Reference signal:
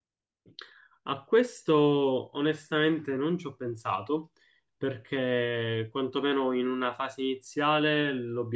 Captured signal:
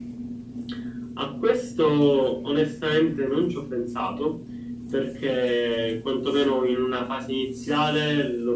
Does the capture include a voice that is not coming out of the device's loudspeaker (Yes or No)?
No